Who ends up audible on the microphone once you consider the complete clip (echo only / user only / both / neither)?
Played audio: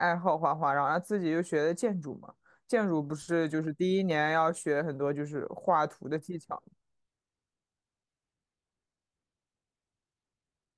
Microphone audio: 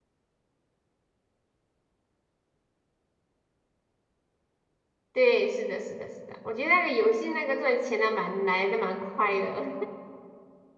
user only